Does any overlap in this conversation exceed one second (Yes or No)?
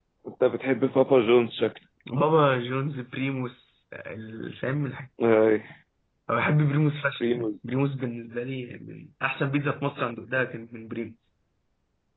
No